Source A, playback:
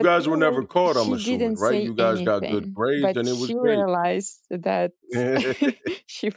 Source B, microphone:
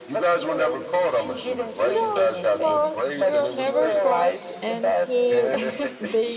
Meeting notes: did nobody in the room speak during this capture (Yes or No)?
No